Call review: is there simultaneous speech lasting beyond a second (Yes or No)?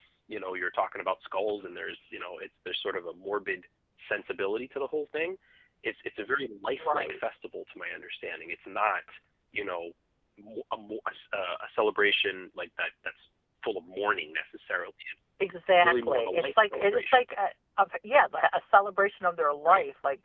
Yes